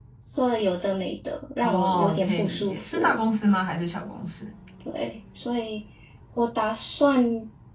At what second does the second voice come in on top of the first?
1.6 s

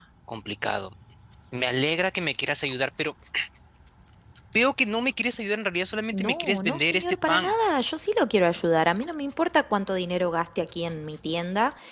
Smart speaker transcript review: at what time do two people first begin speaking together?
6.1 s

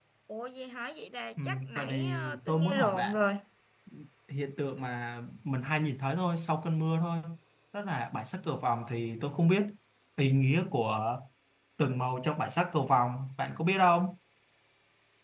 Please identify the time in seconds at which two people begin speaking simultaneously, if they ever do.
1.4 s

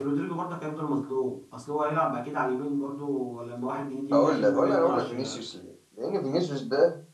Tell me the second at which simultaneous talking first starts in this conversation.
4.1 s

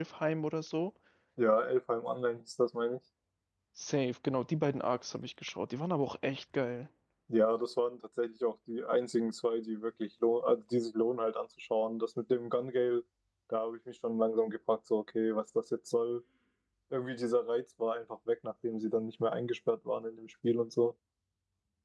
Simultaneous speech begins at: none

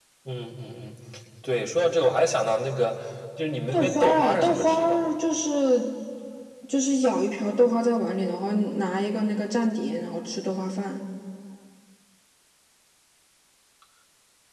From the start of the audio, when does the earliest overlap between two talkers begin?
3.7 s

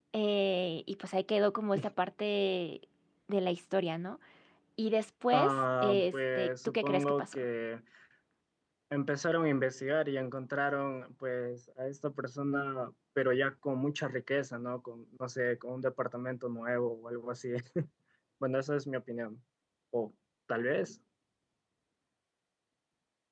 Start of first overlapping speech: 5.3 s

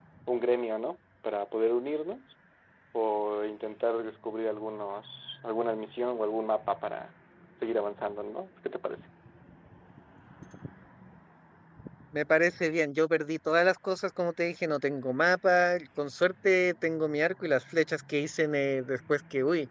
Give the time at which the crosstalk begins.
none

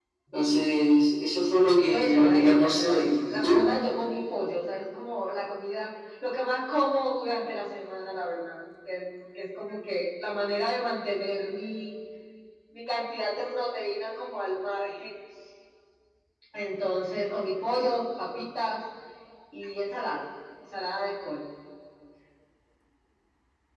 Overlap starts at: 1.9 s

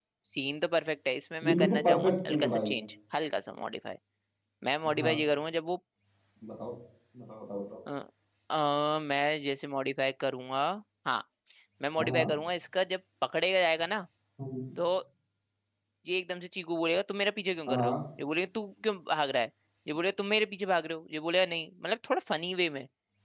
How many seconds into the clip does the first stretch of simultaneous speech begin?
1.4 s

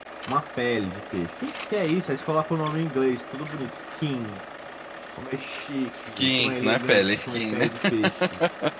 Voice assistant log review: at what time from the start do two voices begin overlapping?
5.9 s

